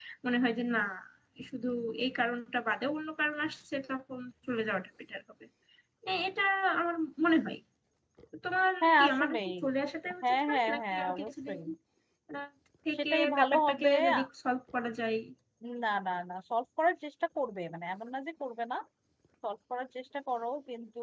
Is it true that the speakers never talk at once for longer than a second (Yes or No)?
No